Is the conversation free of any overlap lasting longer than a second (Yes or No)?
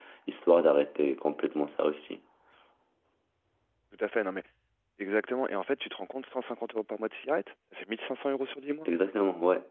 Yes